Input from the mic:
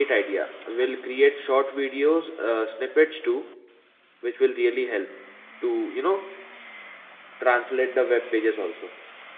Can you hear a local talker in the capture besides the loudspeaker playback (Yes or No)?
Yes